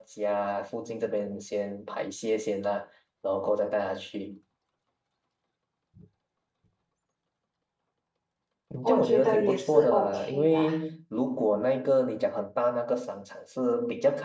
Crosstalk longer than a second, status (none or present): present